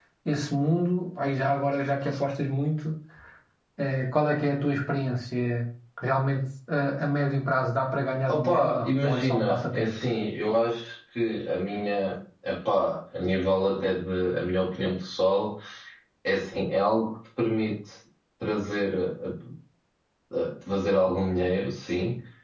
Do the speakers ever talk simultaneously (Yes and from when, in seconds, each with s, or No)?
Yes, from 8.3 s